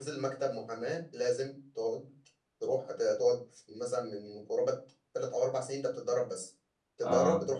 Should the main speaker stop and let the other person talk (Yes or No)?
No